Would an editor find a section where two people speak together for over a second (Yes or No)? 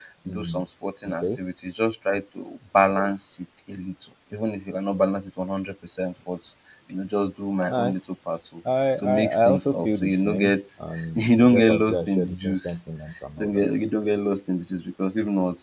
Yes